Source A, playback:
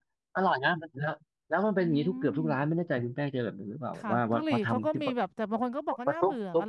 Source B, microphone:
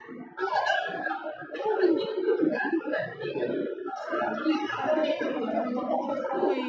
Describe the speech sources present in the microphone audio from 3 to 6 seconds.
both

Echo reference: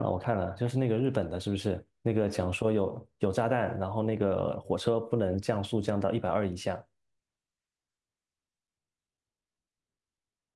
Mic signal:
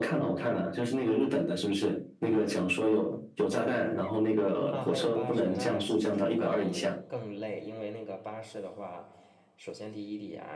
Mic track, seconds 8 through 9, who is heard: user only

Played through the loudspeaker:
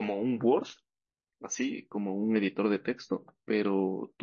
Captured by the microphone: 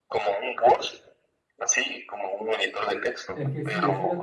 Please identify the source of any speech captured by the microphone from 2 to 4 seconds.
both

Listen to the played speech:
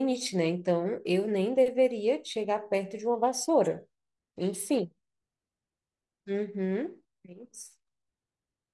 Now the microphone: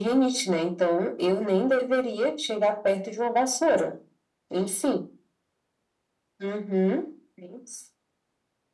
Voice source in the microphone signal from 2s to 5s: echo only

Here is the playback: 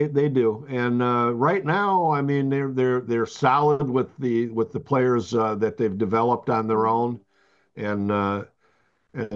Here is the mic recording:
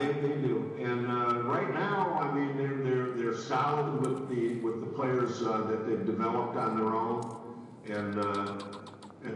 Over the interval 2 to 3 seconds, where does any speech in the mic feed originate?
echo only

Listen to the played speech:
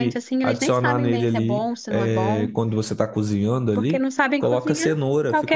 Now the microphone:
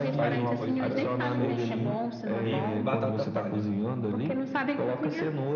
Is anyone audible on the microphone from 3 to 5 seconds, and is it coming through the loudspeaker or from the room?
both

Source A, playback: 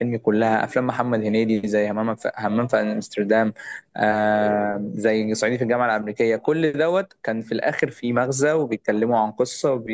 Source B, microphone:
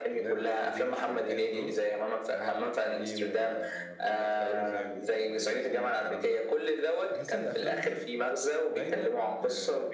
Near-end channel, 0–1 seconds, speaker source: both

